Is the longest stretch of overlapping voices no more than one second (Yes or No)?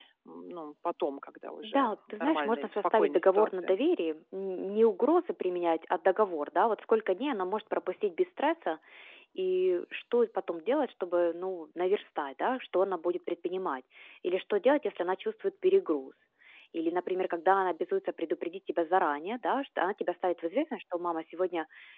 No